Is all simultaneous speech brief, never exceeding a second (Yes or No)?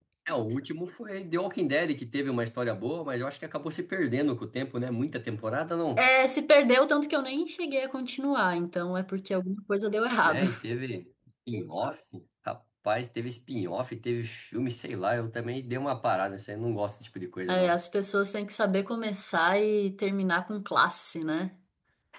Yes